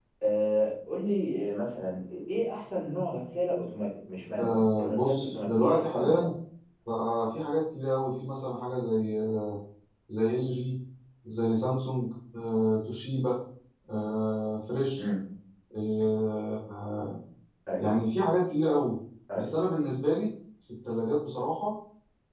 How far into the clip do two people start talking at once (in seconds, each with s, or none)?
4.4 s